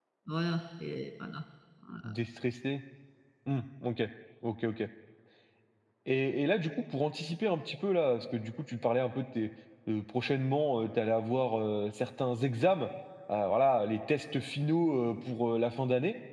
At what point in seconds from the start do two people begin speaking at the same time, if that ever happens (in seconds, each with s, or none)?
none